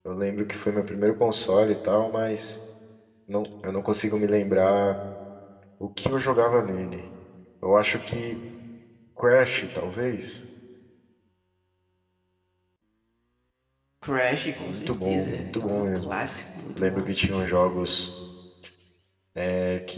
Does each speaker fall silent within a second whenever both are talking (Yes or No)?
No